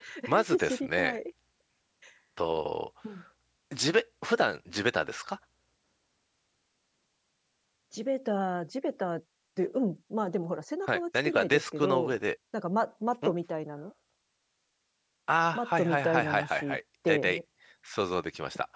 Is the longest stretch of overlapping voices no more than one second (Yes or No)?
No